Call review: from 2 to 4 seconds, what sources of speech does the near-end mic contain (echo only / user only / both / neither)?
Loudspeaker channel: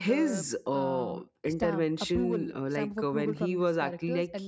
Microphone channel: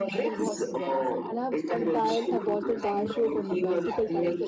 both